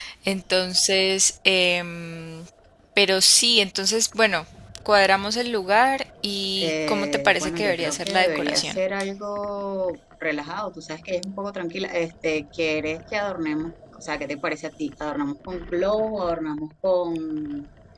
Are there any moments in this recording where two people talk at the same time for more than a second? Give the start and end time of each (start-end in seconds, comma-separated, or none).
6.6-8.8